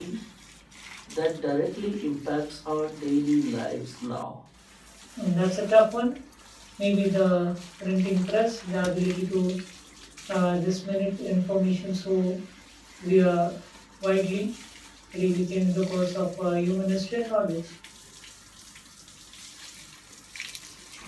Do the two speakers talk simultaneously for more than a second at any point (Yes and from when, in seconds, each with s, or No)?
No